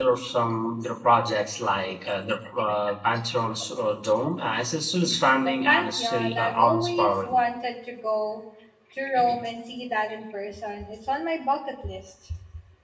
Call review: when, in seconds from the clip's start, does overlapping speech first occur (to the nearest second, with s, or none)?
5 s